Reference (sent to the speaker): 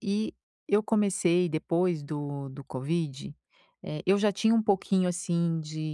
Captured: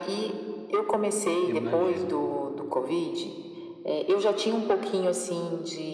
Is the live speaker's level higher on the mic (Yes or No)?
No